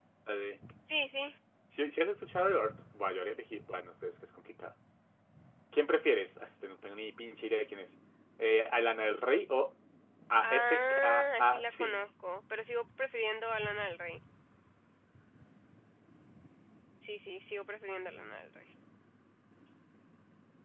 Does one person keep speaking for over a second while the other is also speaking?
Yes, from 10.4 s

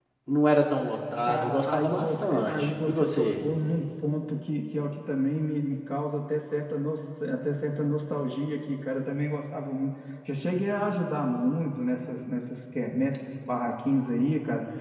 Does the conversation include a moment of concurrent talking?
Yes, from 1.3 s

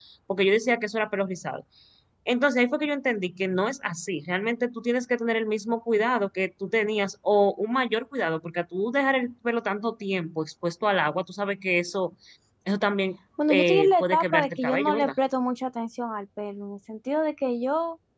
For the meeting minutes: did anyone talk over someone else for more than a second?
Yes, from 13.5 s

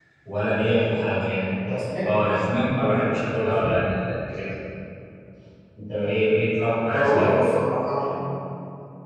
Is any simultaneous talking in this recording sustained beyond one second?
No

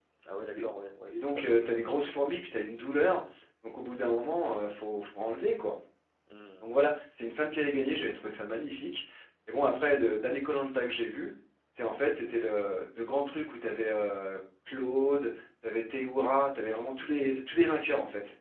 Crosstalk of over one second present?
Yes, from 1.1 s

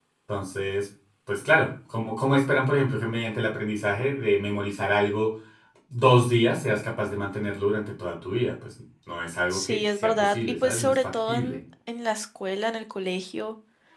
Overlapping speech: Yes, from 9.5 s

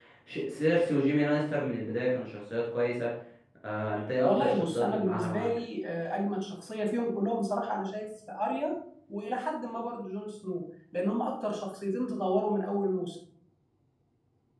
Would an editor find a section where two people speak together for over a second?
Yes, from 4.2 s

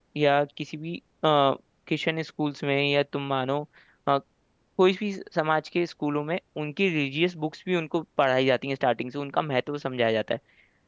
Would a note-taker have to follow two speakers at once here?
No

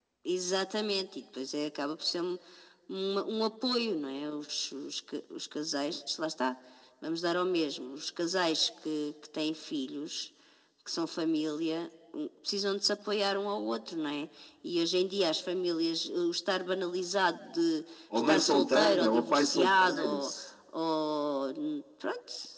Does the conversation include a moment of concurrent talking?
Yes, from 18.1 s

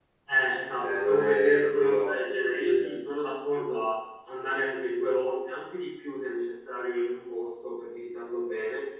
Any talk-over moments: Yes, from 0.8 s

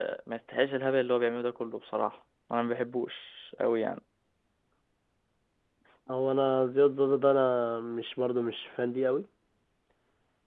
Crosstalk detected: No

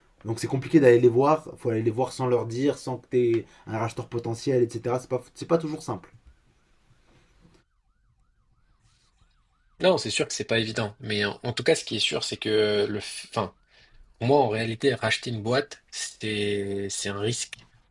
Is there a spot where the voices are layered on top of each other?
No

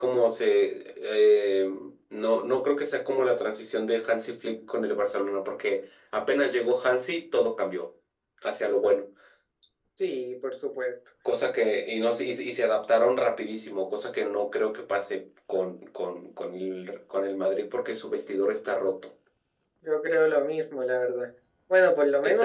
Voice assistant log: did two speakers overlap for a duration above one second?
No

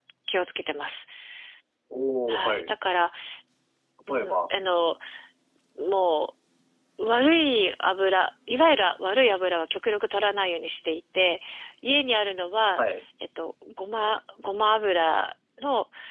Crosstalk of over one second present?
No

